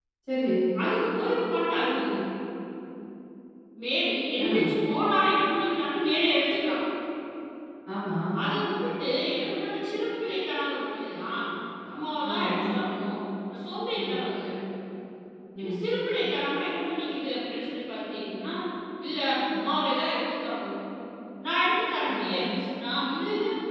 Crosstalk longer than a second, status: none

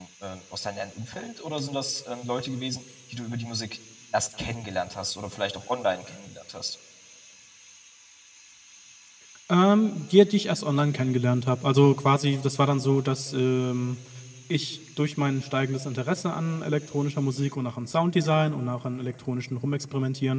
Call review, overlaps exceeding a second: none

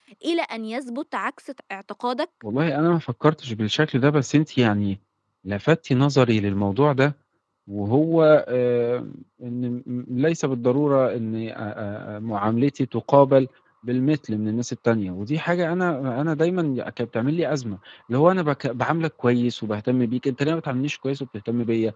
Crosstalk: none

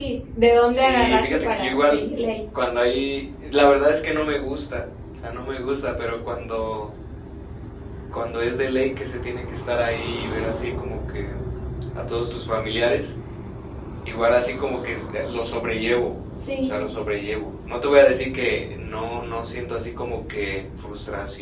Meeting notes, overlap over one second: present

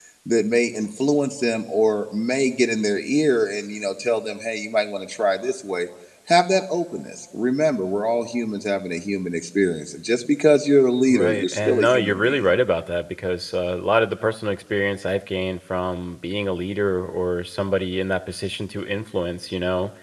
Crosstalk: present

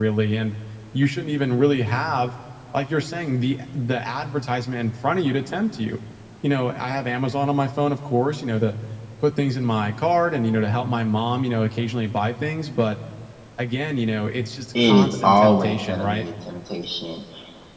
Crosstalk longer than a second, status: present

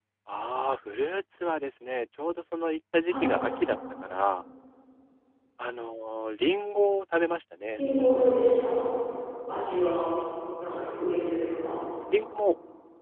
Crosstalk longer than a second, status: none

